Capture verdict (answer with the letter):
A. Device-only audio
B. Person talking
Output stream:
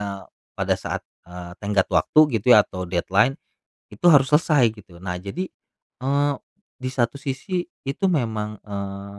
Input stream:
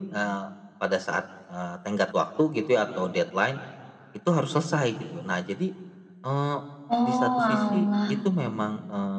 B